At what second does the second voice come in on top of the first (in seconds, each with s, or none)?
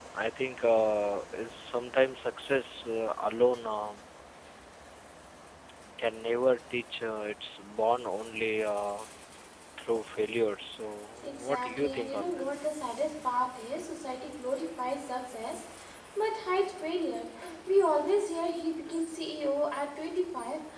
11.2 s